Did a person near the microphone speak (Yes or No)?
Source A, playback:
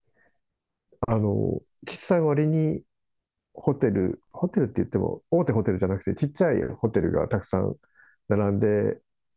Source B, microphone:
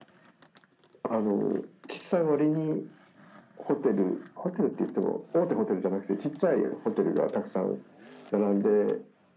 No